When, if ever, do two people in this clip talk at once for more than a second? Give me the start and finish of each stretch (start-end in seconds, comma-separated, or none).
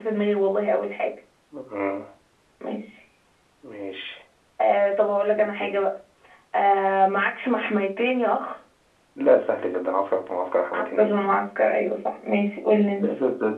none